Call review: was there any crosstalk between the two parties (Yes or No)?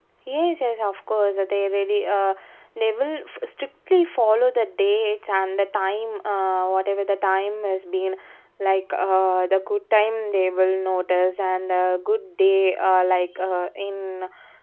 No